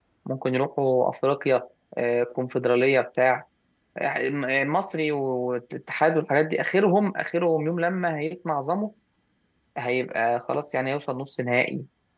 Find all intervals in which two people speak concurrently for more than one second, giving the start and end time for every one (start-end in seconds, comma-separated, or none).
none